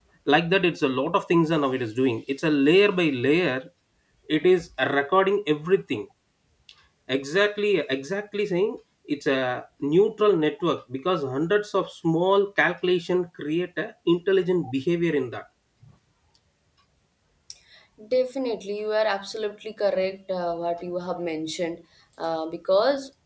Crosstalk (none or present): none